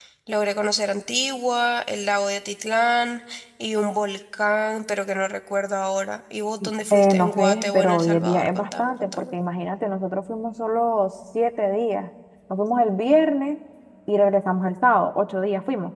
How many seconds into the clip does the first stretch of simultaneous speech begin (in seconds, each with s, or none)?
6.9 s